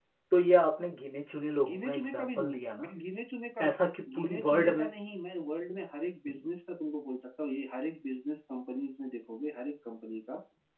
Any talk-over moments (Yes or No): Yes